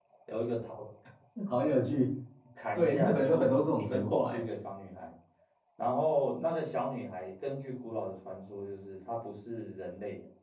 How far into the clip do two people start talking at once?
2.8 s

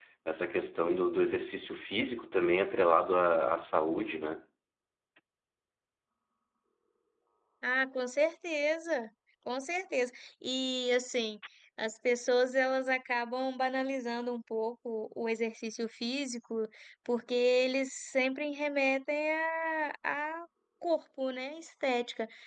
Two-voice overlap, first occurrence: none

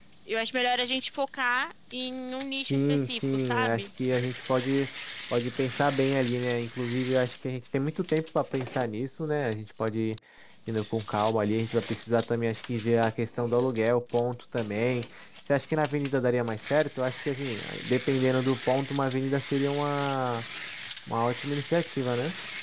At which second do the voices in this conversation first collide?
2.6 s

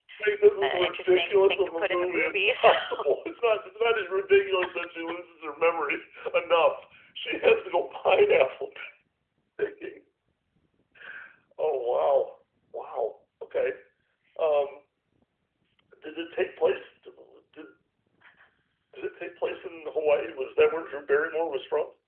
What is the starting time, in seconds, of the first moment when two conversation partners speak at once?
0.6 s

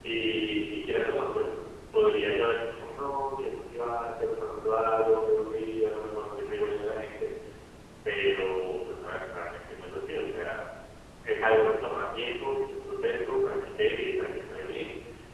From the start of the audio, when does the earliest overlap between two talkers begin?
none

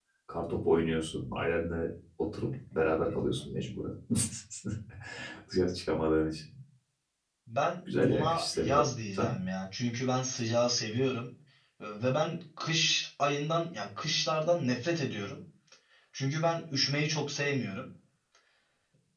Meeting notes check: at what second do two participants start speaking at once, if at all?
7.9 s

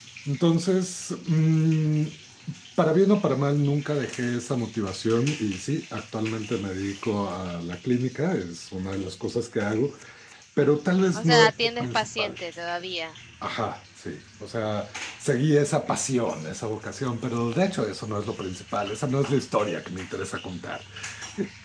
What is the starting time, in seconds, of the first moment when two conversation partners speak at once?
11.1 s

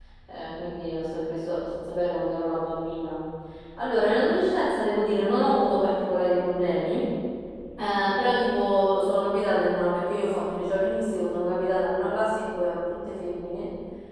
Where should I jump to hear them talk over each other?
none

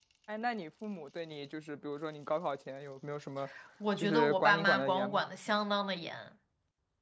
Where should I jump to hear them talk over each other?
4.0 s

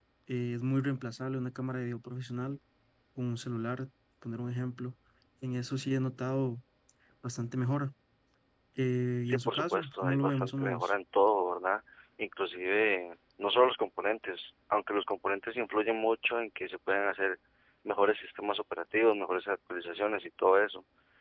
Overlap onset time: 9.3 s

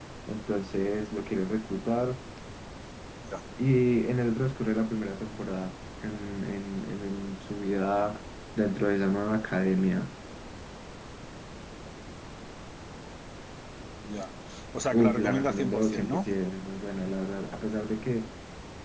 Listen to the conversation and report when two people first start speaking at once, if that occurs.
14.9 s

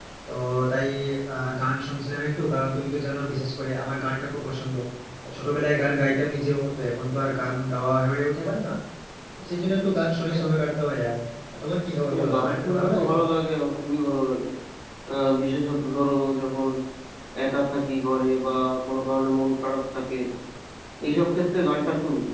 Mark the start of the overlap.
12.1 s

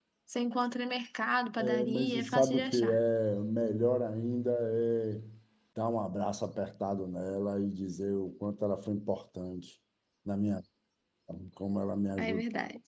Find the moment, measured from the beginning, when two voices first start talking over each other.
1.6 s

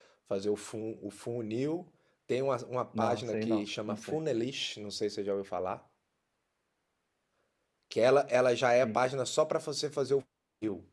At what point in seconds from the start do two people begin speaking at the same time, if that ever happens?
3.0 s

